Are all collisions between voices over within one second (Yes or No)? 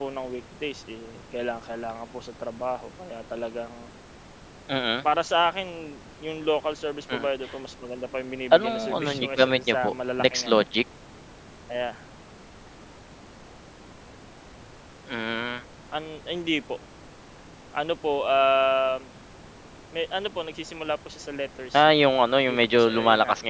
No